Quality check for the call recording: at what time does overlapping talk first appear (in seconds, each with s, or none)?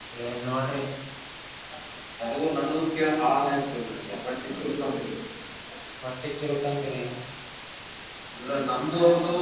none